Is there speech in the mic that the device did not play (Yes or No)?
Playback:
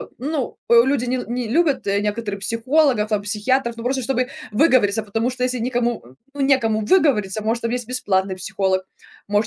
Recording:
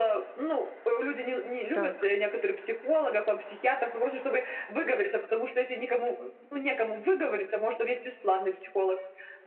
Yes